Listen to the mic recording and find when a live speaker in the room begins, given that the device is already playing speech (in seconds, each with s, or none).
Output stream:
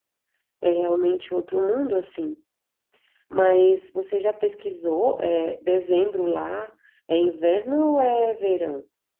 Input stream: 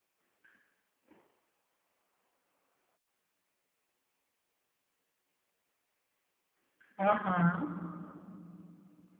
7.0 s